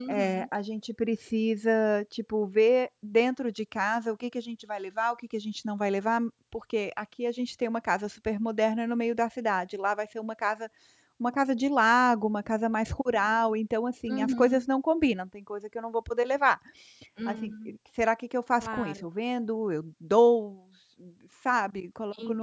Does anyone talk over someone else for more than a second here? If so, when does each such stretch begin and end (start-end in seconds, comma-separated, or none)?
none